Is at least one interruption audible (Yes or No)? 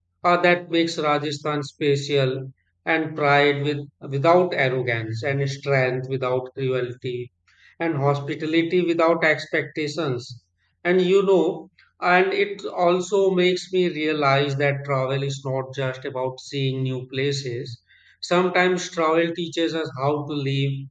No